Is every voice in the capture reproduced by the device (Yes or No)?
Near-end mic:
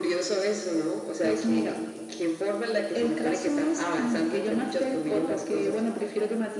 No